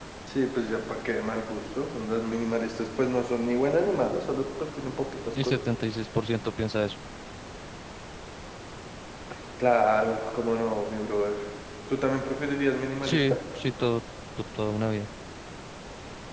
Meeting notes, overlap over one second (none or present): none